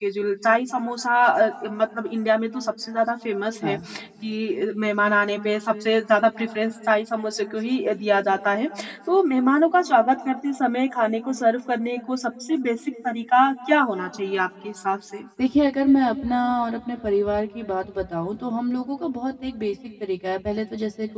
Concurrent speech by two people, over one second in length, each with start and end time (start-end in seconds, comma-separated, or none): none